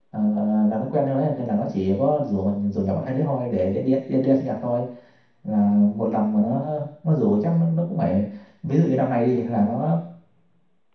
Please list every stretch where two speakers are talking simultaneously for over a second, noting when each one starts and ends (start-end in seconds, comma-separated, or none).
none